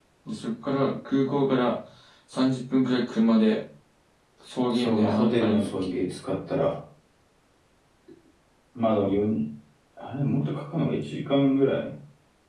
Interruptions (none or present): present